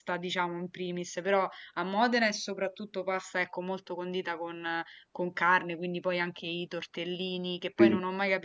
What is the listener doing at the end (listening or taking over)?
listening